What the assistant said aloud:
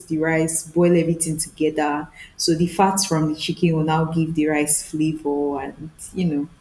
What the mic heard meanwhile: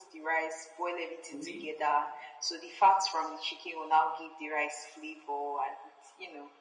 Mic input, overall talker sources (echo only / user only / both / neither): both